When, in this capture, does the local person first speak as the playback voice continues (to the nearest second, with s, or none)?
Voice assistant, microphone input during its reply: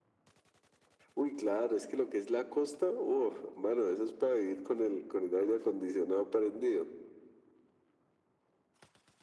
none